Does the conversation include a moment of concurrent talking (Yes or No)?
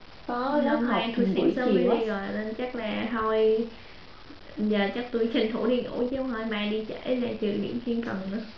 Yes